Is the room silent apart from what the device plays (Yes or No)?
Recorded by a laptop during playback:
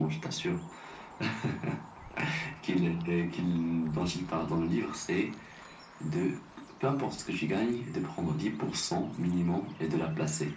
Yes